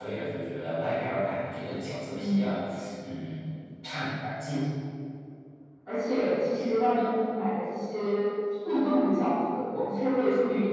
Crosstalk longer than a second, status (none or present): none